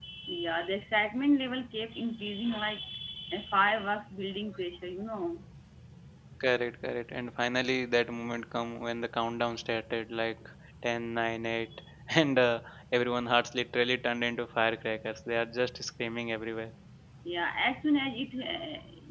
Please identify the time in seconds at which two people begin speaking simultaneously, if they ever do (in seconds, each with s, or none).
none